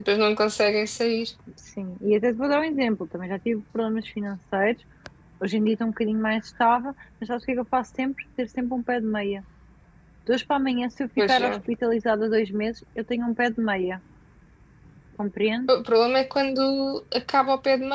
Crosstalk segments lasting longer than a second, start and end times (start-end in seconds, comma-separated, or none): none